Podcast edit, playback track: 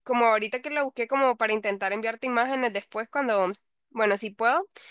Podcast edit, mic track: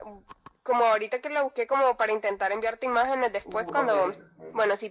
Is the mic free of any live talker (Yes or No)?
No